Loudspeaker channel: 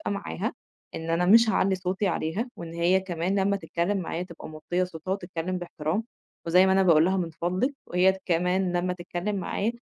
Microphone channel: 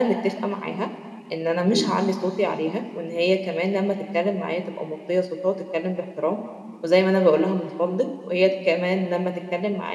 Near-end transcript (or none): حلو.